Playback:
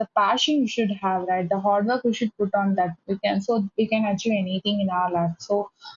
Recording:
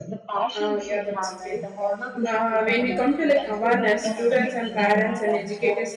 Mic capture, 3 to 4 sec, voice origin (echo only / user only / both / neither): both